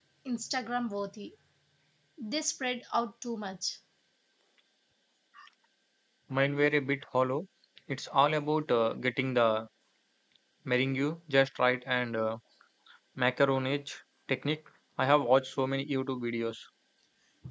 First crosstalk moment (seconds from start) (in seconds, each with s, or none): none